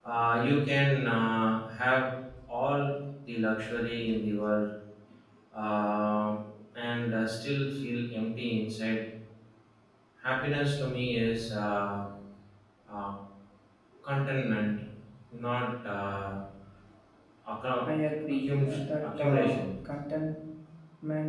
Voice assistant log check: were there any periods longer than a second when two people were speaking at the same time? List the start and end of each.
18.4-19.6

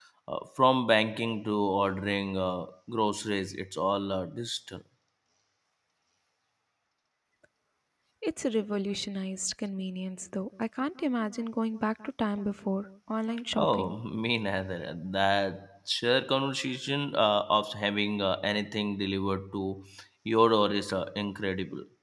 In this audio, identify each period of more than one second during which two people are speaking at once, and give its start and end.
none

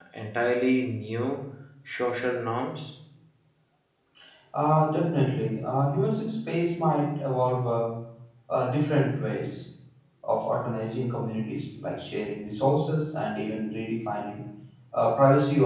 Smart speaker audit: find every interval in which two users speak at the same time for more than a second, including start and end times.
none

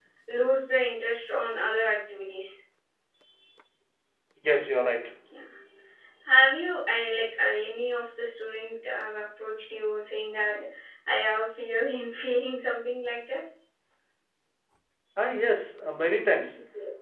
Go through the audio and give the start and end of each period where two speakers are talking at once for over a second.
none

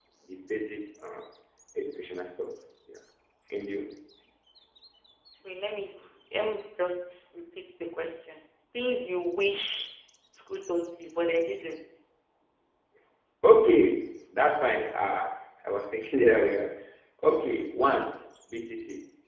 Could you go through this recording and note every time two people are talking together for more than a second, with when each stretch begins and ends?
none

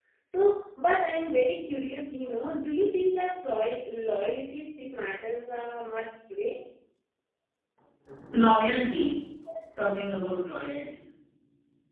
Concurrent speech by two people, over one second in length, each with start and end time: none

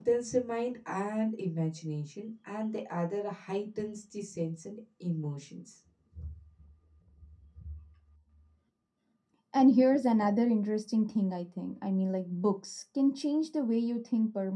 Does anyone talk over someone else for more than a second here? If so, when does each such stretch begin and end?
none

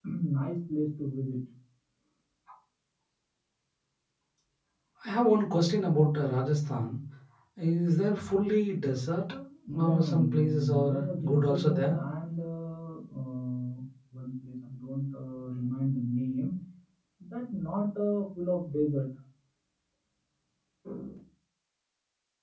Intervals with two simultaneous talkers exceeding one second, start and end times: 9.7-12.0

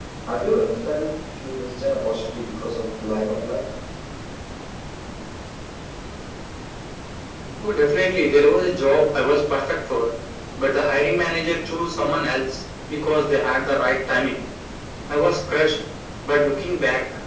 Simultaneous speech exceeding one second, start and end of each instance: none

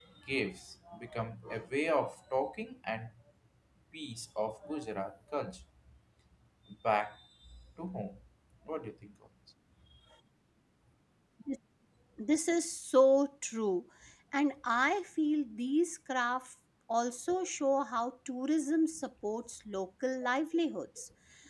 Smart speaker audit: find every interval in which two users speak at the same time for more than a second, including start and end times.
none

